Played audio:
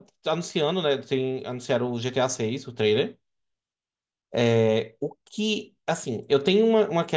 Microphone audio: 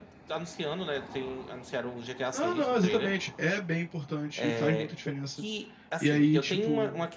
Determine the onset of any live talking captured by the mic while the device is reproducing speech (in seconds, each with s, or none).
2.3 s